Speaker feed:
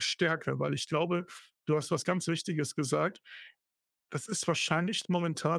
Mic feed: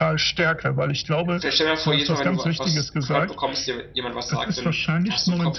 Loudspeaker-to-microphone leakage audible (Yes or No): Yes